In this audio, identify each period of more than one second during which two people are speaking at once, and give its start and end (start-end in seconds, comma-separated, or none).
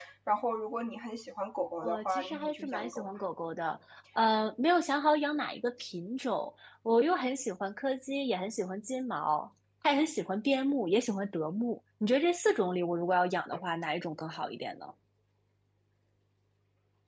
1.8-3.1